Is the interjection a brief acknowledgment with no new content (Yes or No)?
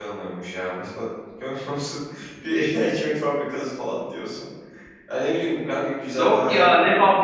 No